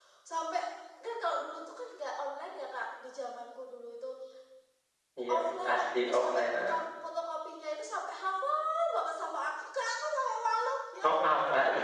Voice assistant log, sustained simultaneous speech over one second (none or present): present